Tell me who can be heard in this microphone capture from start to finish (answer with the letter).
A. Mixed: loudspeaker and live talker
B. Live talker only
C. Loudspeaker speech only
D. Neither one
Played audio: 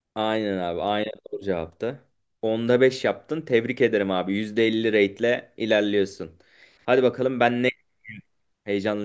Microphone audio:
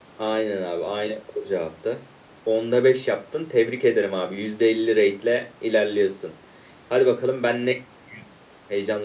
C